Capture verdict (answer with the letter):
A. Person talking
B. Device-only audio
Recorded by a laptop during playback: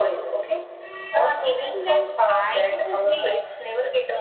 A